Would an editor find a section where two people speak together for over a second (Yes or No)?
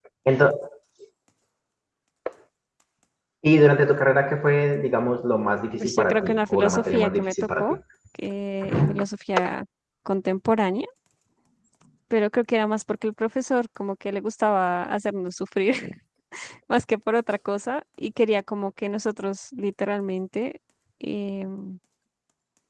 Yes